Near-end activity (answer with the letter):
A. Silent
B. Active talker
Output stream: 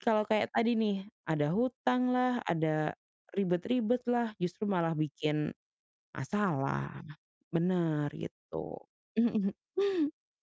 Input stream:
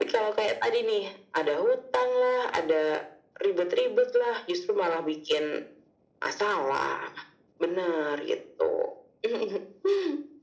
A